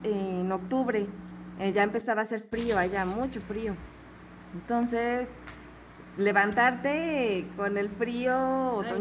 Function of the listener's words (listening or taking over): taking over